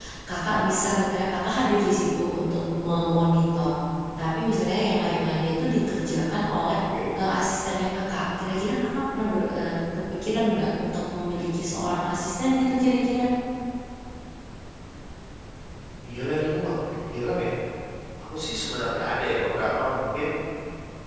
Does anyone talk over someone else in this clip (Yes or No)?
No